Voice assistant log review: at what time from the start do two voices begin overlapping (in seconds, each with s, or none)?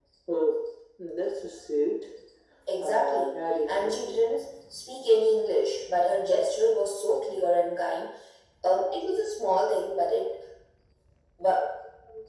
2.8 s